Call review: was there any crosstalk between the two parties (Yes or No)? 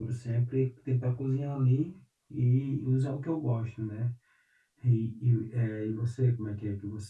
No